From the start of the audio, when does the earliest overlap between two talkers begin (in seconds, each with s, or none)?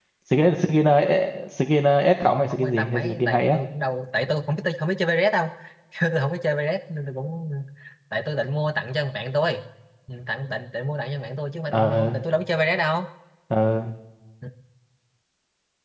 2.2 s